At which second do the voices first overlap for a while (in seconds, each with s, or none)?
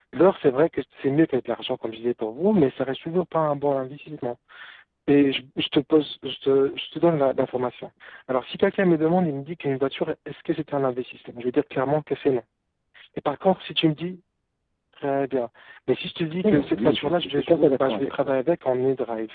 16.4 s